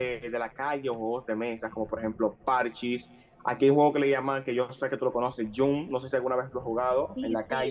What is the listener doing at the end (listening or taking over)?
taking over